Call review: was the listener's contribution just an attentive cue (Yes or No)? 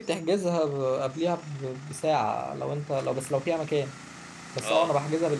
Yes